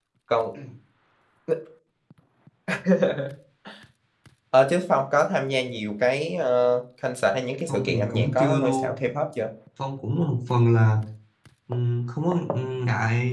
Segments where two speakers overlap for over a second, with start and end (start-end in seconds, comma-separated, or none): 7.7-9.0